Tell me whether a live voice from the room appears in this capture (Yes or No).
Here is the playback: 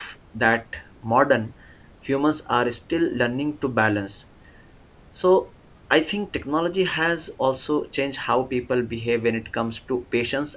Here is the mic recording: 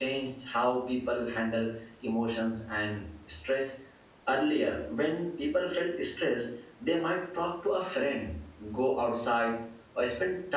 Yes